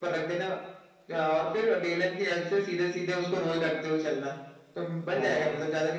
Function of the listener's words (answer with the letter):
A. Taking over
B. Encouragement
B